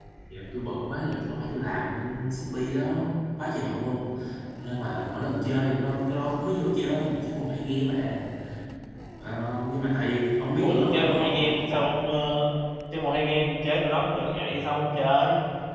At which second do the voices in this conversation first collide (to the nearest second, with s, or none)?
11 s